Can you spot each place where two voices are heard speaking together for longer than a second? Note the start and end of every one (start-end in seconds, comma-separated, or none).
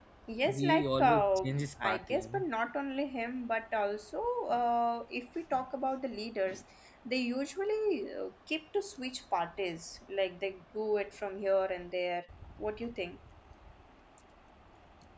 0.5-2.5